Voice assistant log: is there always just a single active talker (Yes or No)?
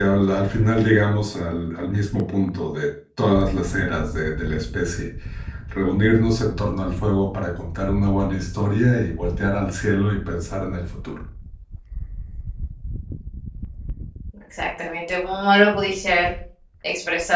Yes